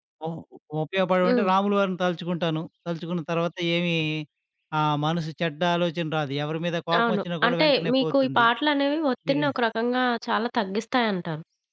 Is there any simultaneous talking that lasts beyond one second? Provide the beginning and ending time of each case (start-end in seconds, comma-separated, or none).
7.0-8.4